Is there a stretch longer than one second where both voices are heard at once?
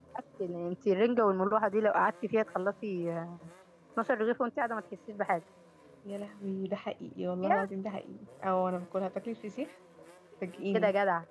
No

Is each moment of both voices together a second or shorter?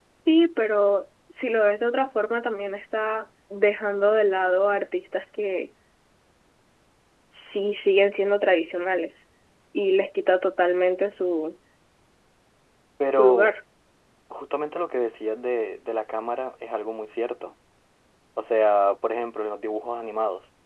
Yes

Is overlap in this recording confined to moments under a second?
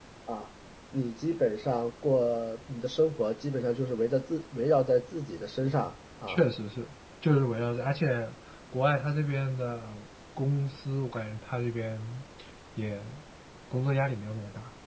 Yes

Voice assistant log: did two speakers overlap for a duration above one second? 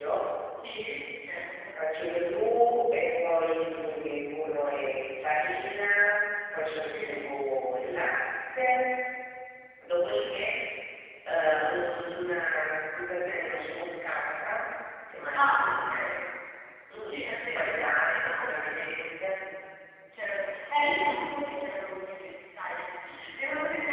Yes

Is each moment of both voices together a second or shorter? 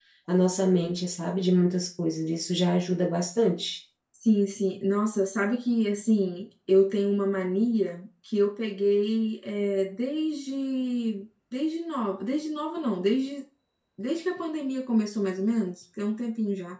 Yes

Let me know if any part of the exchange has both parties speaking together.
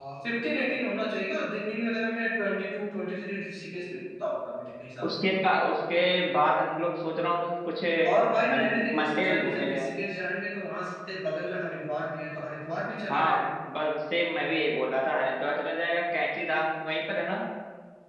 Yes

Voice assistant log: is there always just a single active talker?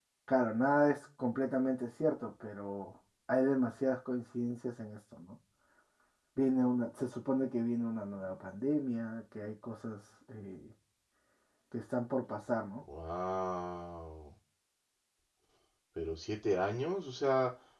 Yes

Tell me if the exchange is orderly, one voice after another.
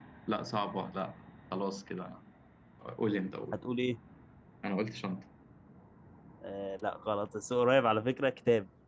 Yes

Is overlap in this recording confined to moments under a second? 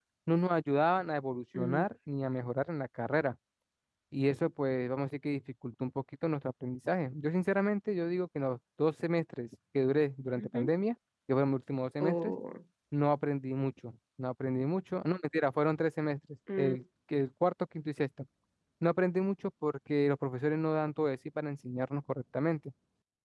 Yes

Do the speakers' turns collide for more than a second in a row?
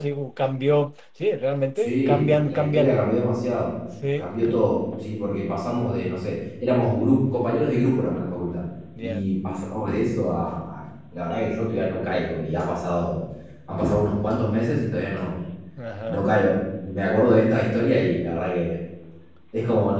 Yes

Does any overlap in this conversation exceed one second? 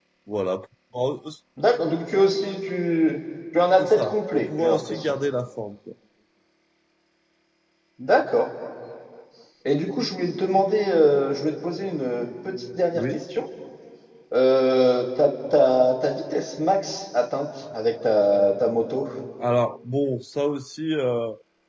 Yes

